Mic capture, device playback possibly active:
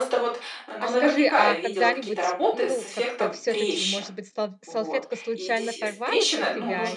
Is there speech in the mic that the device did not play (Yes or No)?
Yes